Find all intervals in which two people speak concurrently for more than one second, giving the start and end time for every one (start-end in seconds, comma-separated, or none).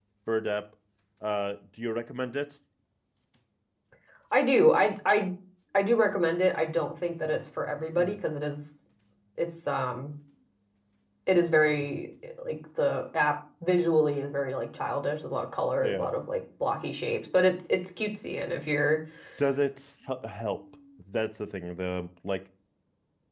none